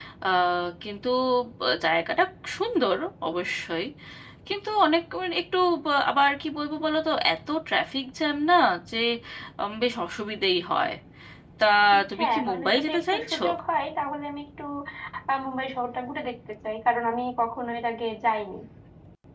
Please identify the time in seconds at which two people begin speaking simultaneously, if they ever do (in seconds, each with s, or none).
12.2 s